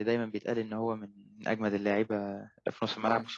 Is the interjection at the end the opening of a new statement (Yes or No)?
Yes